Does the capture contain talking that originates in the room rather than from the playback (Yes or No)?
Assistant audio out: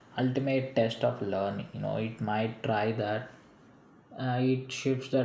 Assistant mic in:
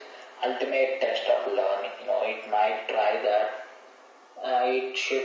No